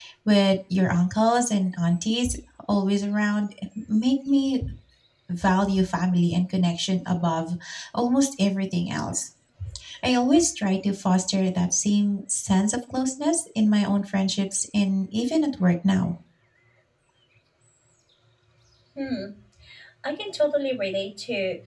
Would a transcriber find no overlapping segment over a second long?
Yes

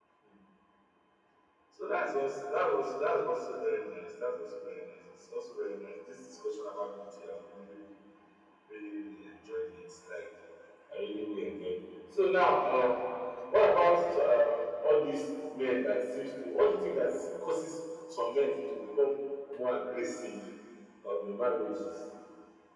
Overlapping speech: No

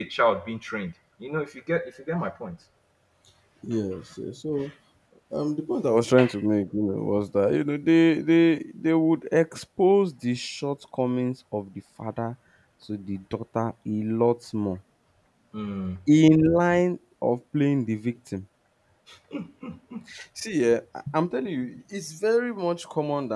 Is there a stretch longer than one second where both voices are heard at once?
No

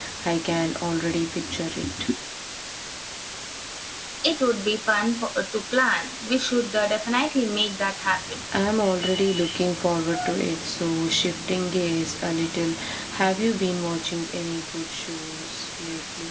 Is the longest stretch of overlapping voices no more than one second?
Yes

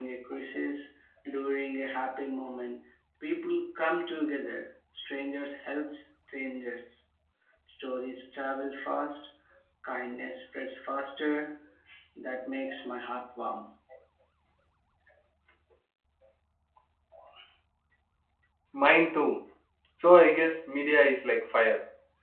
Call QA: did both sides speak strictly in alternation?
Yes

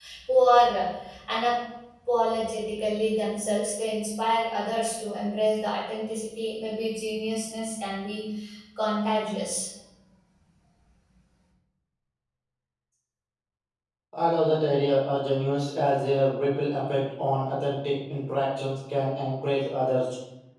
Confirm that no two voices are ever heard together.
Yes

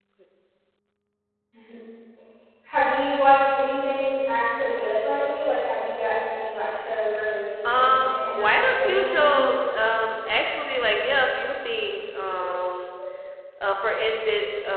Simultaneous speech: Yes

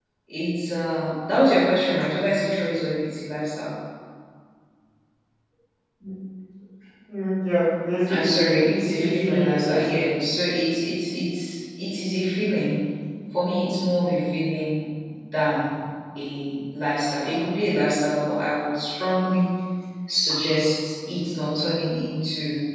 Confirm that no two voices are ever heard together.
No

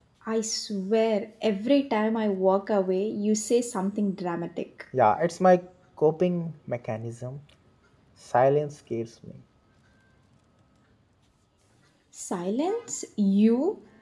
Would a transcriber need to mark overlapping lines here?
No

